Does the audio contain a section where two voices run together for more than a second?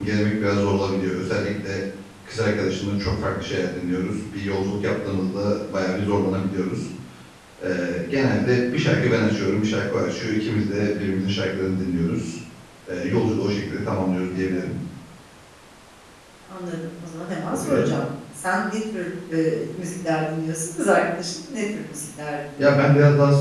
No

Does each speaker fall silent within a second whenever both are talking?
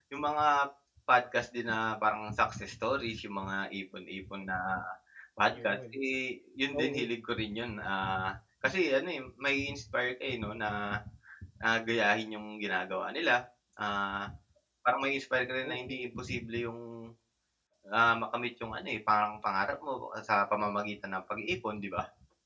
Yes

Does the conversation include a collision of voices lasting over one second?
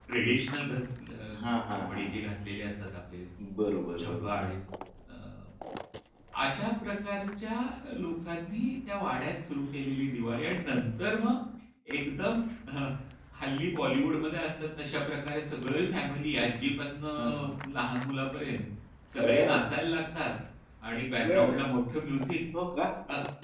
No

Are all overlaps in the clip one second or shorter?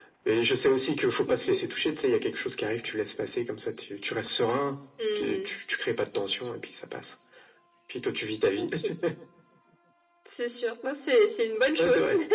Yes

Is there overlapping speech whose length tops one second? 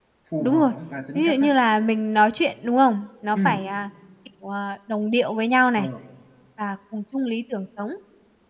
No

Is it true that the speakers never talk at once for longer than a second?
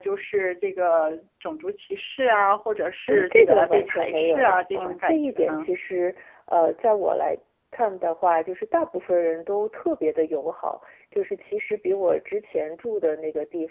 No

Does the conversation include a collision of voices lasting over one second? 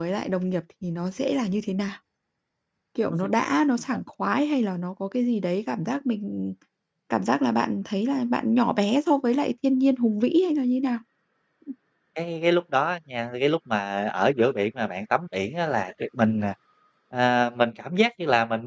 No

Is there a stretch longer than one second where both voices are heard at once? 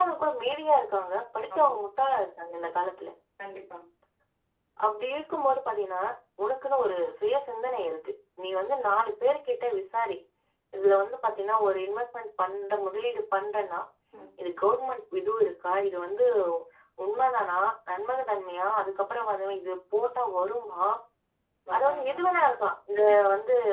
No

